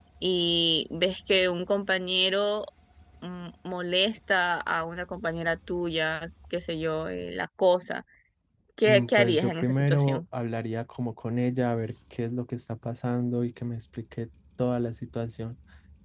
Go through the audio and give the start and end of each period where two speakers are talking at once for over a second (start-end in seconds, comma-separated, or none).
8.8-10.2